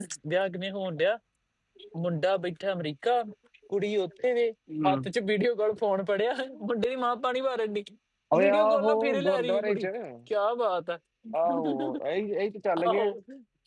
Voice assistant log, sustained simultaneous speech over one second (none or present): present